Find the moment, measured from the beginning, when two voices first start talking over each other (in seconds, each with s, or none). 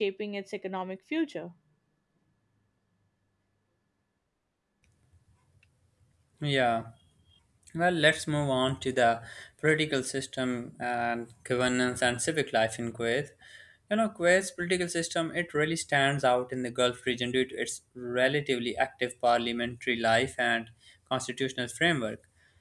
none